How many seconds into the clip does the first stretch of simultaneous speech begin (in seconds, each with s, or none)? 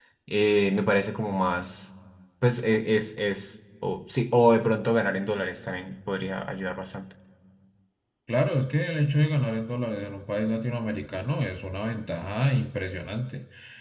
none